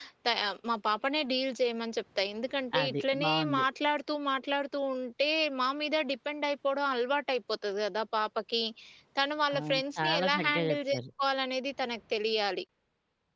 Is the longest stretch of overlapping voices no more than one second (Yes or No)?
No